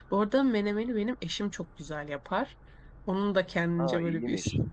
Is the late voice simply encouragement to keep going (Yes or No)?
Yes